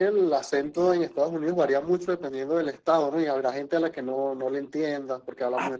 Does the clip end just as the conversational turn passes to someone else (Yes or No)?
Yes